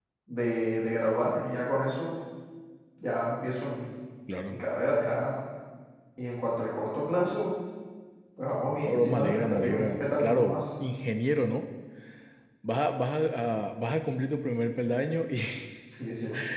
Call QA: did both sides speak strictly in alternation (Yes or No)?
No